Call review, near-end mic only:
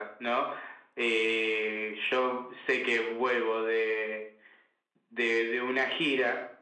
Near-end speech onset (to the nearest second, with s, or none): none